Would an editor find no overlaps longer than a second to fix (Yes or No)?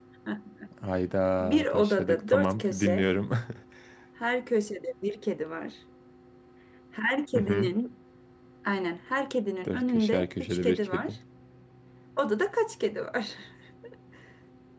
No